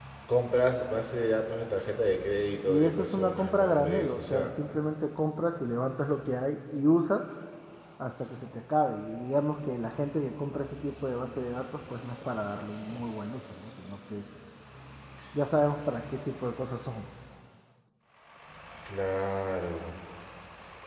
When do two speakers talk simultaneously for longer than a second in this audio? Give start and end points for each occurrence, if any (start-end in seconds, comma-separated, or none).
2.7-4.5